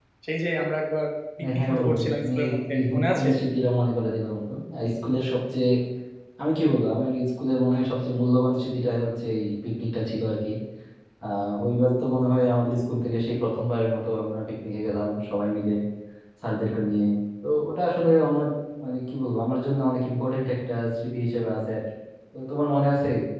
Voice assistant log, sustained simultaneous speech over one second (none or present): present